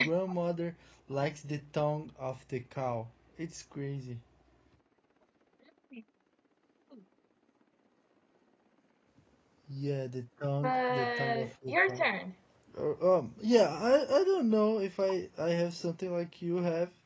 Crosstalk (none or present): present